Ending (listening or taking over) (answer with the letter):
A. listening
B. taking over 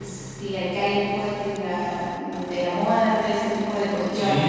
B